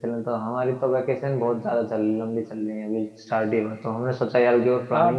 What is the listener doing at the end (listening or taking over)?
taking over